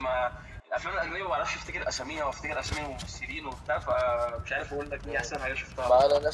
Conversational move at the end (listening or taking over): taking over